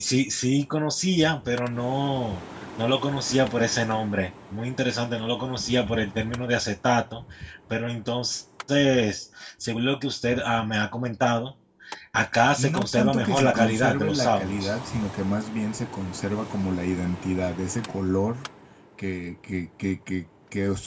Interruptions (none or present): present